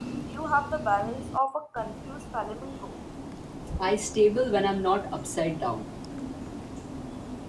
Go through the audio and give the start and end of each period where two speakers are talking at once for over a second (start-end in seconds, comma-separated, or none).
none